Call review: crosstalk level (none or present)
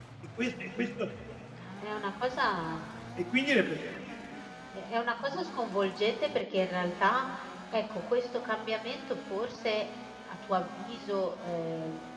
none